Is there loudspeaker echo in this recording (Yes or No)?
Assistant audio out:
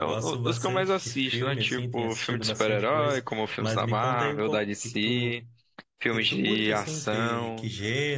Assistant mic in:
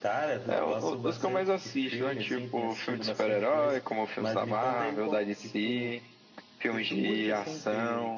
Yes